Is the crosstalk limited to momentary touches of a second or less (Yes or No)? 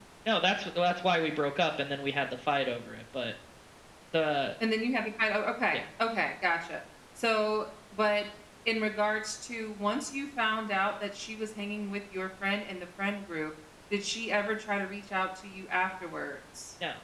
Yes